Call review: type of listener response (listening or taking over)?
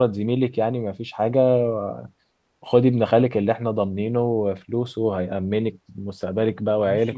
taking over